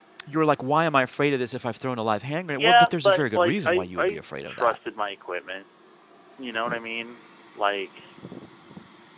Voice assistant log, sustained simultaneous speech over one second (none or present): present